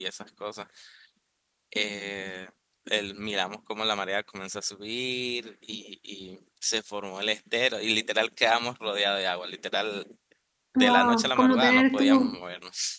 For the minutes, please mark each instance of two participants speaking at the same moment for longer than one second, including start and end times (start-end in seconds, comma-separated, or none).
10.8-12.4